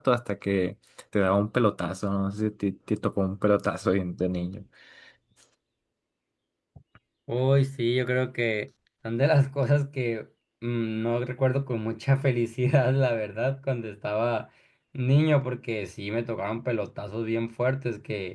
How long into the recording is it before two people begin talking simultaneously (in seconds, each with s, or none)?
none